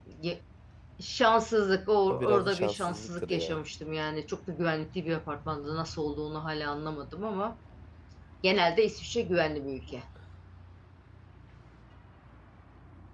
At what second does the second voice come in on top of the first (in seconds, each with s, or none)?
2.1 s